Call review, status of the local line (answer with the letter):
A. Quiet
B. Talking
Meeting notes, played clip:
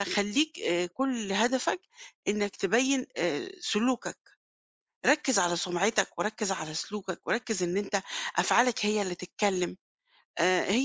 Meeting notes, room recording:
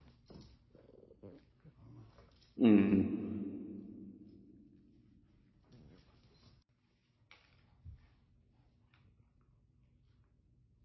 B